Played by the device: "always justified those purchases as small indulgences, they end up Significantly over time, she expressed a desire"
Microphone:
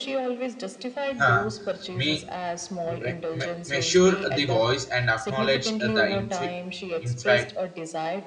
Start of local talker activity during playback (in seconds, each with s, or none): 1.2 s